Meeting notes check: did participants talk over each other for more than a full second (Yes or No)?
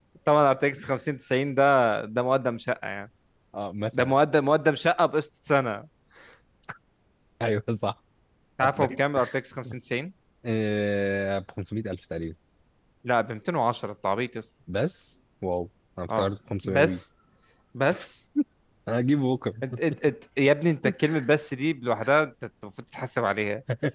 No